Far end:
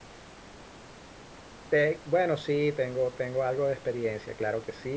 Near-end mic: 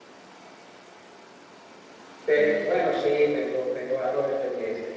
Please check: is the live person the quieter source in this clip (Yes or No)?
Yes